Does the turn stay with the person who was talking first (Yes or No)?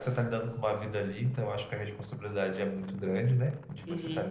No